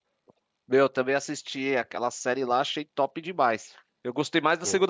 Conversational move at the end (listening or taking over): listening